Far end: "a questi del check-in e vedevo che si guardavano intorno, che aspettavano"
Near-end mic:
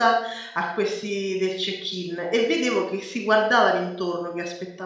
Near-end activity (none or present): none